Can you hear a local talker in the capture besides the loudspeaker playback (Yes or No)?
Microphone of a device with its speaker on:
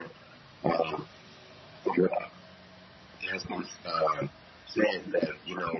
No